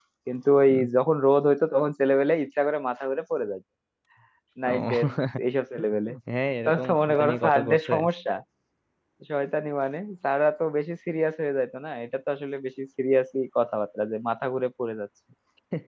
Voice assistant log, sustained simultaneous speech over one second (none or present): present